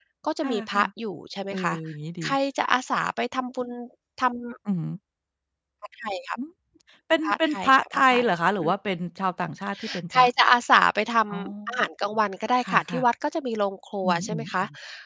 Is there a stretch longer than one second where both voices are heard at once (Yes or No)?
Yes